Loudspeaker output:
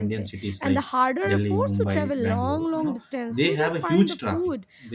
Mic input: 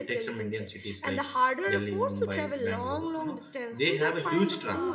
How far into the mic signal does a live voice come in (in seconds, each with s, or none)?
4.0 s